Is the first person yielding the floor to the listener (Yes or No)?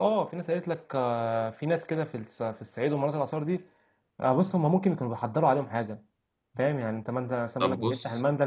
No